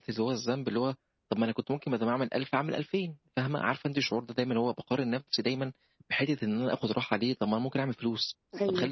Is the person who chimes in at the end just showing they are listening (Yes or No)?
Yes